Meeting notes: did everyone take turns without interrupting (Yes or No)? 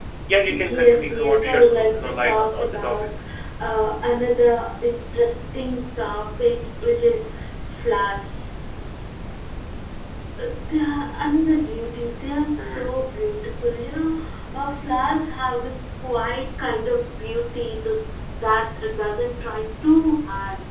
No